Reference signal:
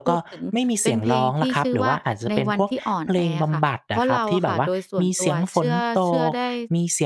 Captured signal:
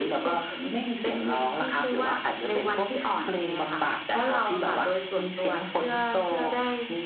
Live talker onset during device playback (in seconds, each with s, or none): none